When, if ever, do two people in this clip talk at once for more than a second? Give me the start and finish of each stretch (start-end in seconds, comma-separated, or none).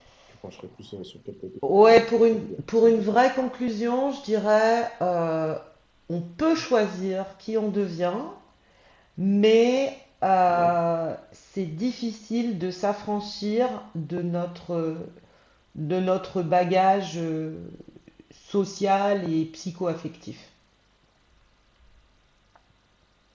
1.7-3.0